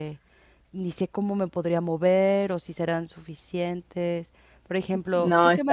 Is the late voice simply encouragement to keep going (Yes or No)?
Yes